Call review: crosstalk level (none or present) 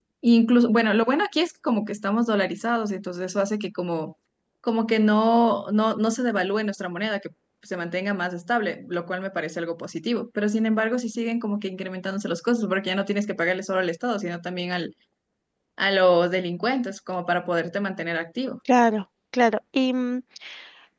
none